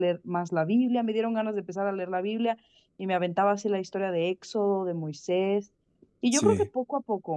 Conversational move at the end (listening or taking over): listening